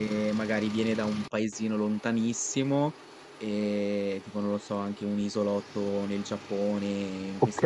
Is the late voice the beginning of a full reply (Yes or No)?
No